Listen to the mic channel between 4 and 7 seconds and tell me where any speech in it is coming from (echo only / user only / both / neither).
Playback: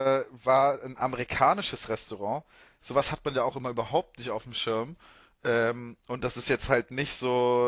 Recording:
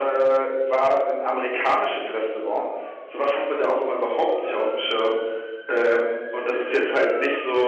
echo only